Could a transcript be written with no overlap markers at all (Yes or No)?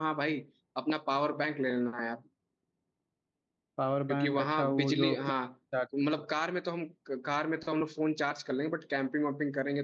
No